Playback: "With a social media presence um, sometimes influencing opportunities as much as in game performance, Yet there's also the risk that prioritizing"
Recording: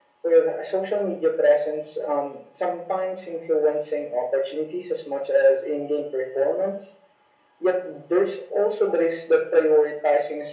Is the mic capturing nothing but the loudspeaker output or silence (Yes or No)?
Yes